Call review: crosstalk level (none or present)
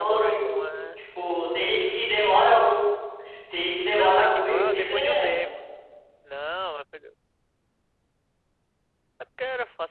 present